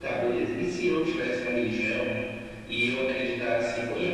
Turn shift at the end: No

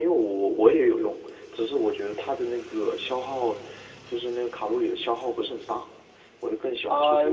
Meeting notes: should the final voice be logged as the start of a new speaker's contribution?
Yes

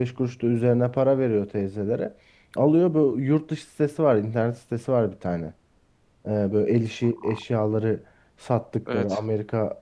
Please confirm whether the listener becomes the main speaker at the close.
No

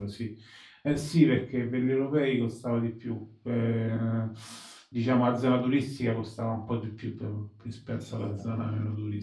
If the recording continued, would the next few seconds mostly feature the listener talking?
No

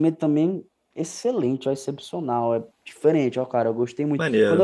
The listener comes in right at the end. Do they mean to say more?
No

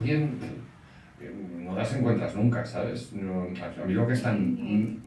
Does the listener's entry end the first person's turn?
No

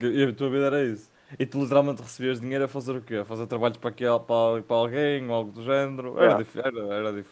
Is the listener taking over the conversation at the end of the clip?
No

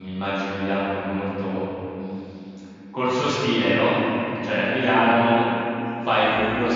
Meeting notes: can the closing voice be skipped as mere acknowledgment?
Yes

